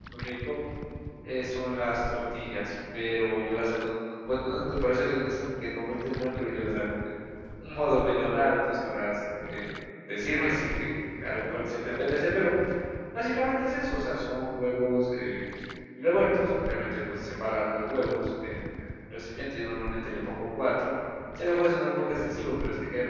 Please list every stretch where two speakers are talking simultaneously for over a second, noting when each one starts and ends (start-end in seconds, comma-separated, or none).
none